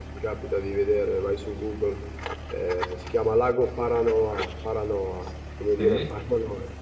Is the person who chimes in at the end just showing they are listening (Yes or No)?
Yes